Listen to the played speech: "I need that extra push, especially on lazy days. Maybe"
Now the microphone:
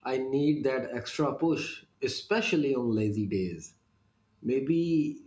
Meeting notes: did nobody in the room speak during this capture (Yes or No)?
Yes